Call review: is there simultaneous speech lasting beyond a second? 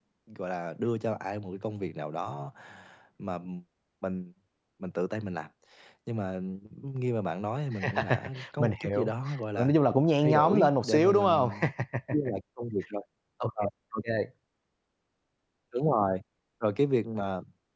Yes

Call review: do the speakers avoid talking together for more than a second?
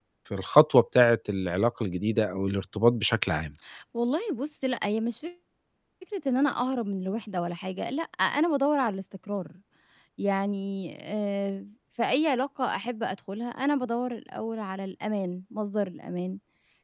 Yes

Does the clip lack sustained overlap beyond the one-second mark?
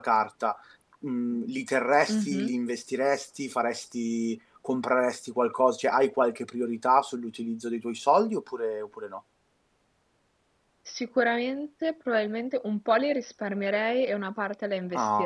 Yes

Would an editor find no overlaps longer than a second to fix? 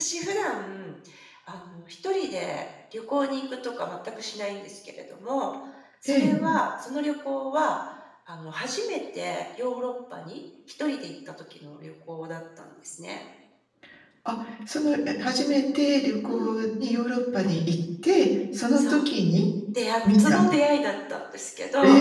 Yes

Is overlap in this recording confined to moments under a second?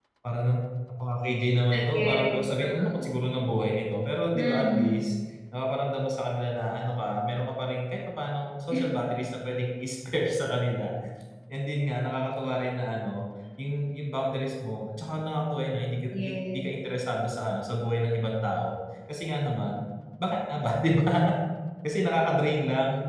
No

